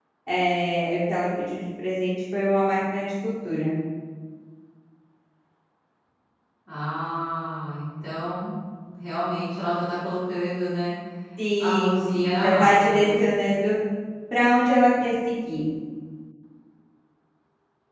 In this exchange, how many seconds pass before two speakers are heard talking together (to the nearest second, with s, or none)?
12 s